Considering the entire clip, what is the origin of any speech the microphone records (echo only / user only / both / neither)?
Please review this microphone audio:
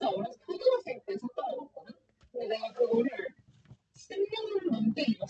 echo only